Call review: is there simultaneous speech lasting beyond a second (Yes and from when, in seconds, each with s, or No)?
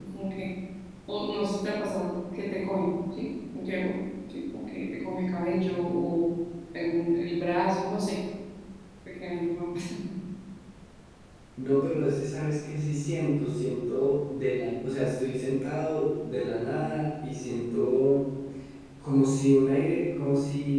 No